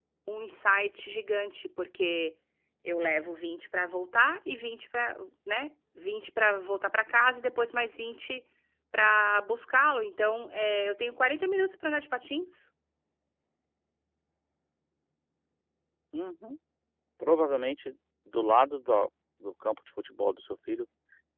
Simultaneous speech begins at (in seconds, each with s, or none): none